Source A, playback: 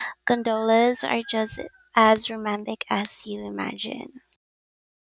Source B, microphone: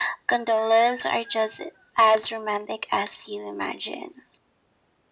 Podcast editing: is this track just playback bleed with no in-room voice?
Yes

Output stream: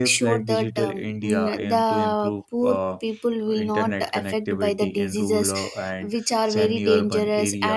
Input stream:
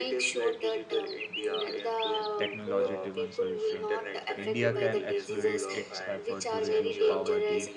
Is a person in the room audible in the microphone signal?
Yes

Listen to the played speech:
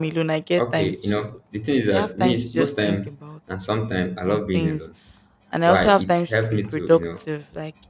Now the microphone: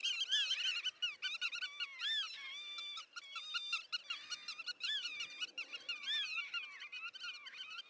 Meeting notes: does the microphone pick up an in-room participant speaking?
No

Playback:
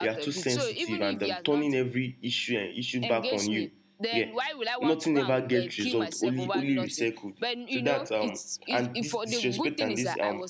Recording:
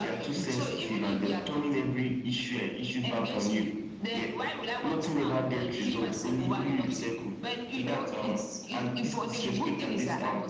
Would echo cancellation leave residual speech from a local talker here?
No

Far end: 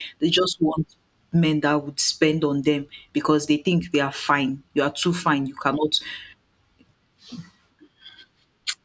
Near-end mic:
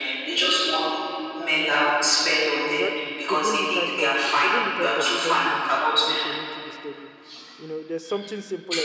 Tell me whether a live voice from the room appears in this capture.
Yes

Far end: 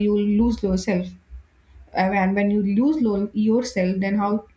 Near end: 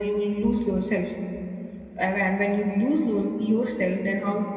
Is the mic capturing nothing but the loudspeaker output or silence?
Yes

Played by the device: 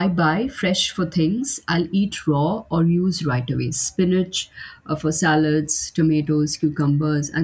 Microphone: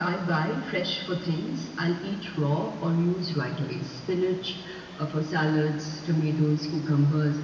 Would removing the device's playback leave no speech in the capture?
Yes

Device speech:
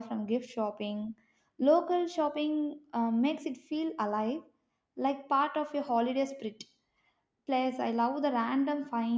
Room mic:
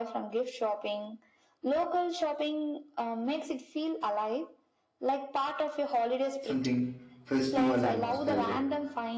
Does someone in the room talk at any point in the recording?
Yes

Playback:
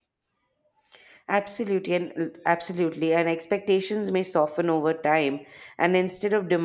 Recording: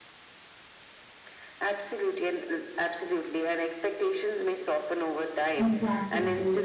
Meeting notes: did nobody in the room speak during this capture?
No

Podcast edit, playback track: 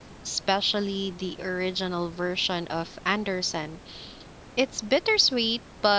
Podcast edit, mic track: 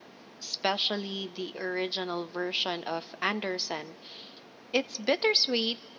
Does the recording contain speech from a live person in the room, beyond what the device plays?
No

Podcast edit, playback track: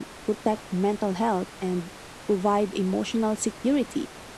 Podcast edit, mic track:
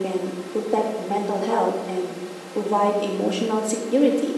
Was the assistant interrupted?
No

